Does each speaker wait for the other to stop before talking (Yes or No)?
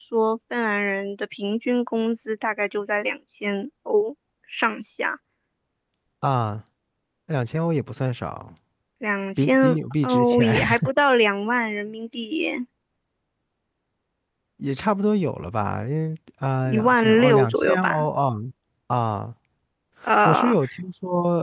No